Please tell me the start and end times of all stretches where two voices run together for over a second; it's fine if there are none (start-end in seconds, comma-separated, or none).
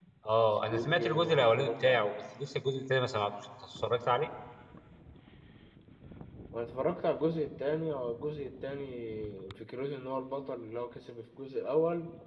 0.7-2.1